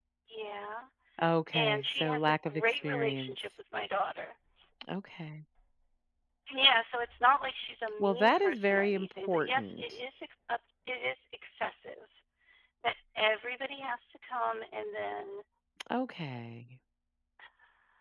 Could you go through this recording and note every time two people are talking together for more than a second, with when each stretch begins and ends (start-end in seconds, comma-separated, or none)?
1.5-3.3, 8.0-9.8